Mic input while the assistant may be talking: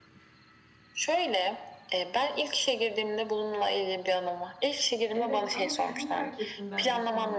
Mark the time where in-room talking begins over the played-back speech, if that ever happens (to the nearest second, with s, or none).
5 s